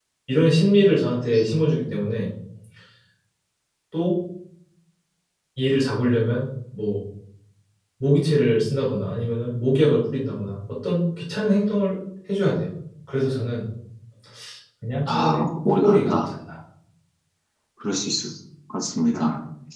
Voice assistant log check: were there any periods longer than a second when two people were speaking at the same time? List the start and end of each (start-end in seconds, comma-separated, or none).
15.1-16.3